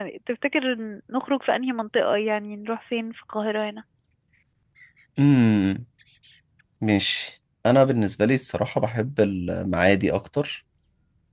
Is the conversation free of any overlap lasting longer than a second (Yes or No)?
Yes